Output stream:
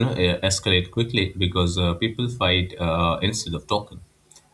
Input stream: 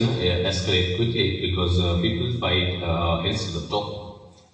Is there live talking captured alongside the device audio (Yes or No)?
No